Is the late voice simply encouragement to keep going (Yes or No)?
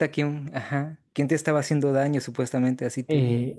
No